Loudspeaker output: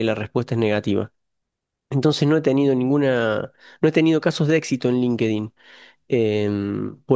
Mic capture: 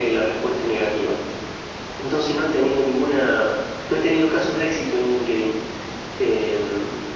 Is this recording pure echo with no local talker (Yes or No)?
Yes